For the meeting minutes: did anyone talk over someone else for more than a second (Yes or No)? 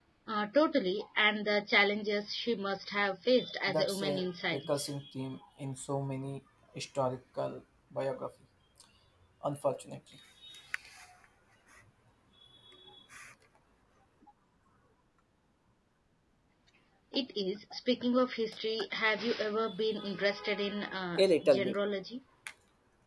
Yes